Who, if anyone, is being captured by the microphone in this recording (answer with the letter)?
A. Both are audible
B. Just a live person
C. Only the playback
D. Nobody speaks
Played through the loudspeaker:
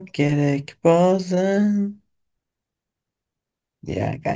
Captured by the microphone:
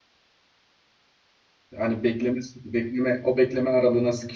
B